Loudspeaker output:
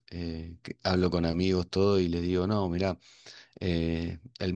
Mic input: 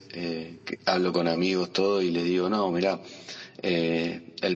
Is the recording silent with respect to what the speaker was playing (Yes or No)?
No